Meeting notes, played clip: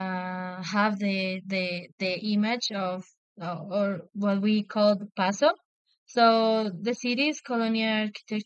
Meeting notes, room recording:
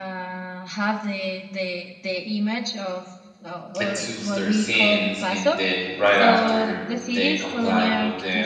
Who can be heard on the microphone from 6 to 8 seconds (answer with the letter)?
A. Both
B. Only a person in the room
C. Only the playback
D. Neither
A